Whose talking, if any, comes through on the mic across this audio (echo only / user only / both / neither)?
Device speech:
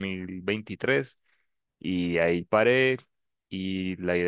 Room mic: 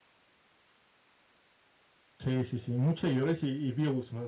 user only